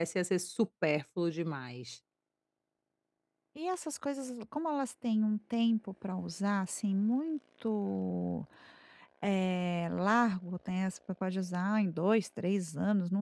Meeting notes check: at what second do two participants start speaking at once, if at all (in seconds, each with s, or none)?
none